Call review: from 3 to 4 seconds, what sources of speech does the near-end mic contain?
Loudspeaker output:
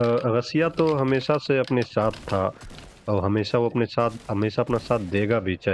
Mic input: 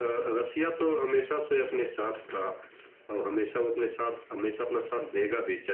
echo only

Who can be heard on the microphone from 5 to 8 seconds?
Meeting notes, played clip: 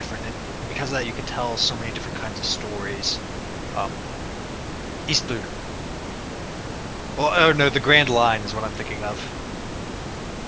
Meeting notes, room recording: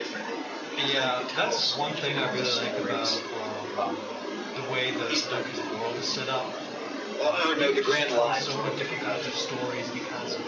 both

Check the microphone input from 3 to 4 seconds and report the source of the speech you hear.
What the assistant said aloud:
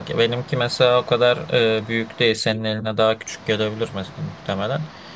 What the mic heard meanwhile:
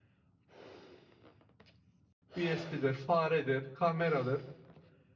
user only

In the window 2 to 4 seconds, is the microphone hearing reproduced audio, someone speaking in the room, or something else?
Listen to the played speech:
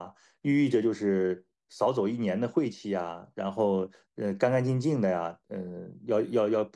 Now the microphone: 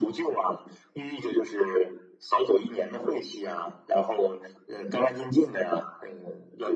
echo only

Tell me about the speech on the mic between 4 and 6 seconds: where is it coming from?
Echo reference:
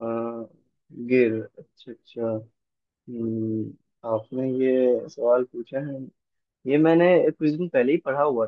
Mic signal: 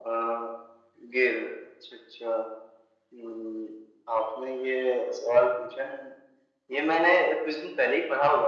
echo only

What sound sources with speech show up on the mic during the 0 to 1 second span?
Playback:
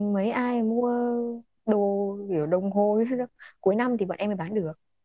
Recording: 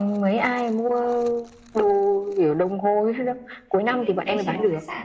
echo only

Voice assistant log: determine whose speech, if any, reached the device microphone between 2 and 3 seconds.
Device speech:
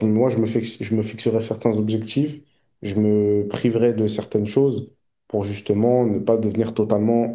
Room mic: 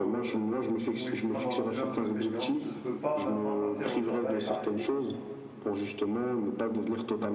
both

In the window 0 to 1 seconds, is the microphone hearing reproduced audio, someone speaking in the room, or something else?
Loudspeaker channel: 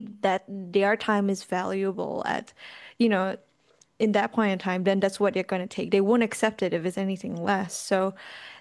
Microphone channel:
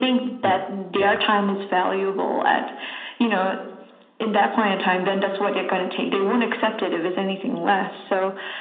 both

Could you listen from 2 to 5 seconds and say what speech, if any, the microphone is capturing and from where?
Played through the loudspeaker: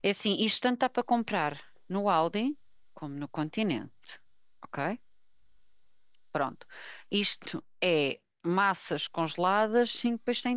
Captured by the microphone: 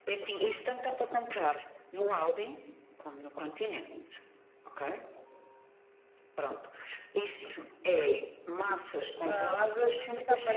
echo only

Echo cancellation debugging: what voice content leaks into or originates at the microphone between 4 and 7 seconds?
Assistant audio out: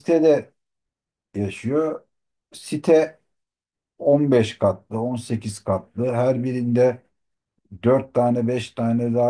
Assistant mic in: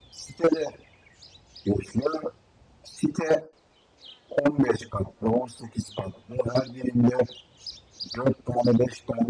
echo only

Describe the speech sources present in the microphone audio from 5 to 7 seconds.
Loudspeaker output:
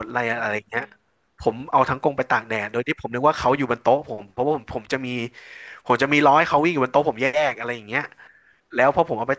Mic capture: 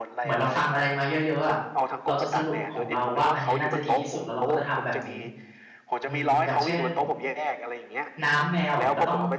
both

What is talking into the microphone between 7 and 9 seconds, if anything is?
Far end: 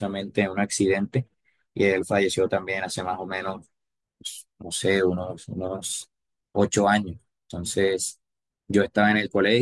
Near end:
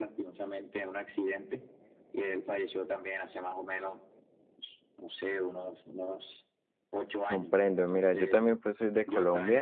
both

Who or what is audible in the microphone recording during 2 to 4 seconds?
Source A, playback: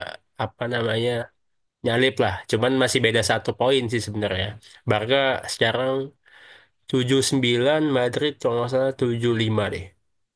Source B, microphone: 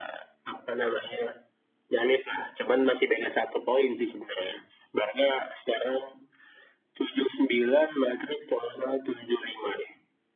echo only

